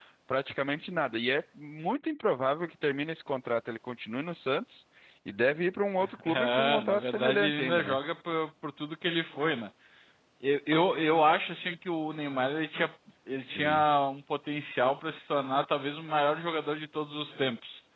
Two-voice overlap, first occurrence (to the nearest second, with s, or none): 6 s